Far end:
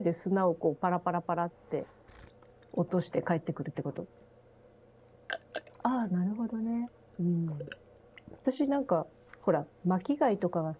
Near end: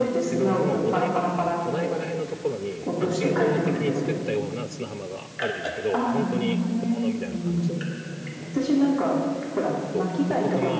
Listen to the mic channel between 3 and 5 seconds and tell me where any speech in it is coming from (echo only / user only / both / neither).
both